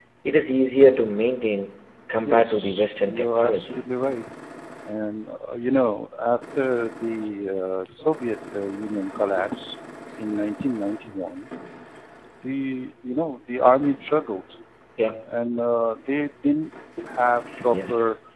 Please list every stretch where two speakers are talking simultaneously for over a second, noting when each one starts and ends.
2.2-3.8

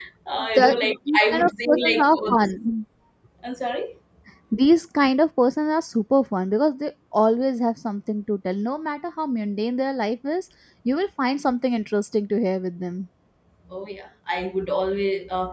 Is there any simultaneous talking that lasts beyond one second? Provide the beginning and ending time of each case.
0.6-2.5

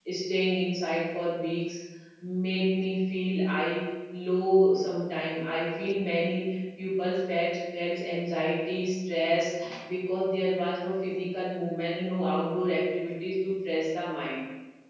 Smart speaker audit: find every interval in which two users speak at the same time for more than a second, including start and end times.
none

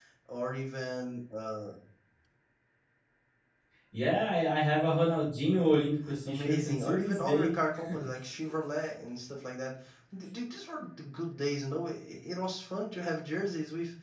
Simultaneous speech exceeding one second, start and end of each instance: 6.2-7.5

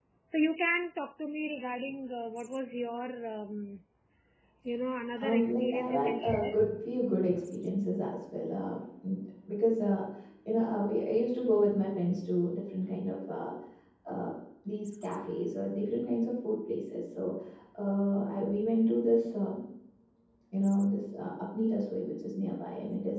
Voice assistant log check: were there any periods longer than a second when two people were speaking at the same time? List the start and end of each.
5.2-6.5

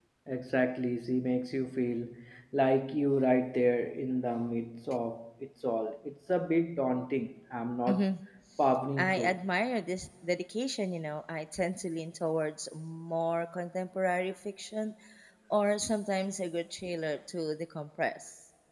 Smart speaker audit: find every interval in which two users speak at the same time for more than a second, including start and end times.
none

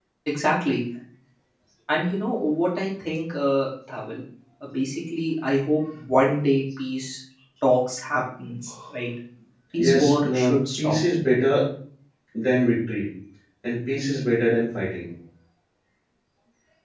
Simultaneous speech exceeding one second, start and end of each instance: 9.8-11.0

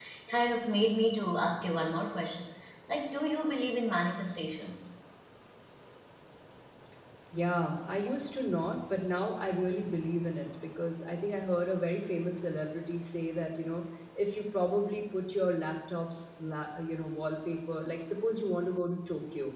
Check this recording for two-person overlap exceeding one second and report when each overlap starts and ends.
none

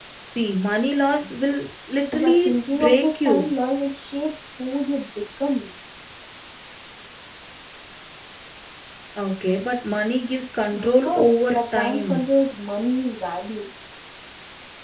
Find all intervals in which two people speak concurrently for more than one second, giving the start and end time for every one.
2.1-3.5, 10.7-12.2

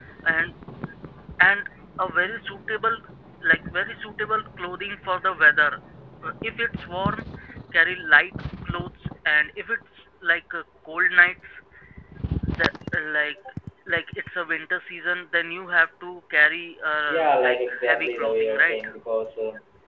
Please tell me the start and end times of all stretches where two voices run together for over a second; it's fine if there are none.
17.1-18.8

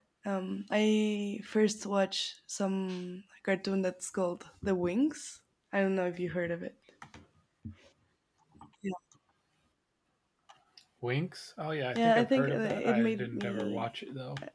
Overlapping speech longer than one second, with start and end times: 11.9-13.9

